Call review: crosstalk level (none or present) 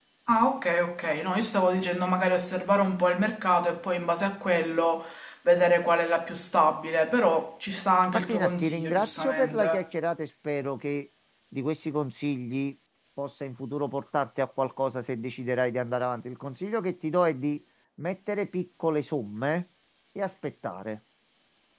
present